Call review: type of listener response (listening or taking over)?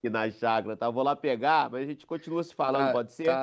taking over